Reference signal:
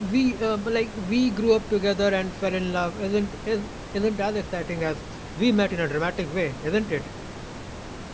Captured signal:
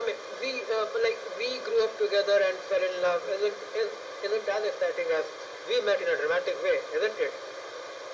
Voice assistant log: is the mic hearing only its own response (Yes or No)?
Yes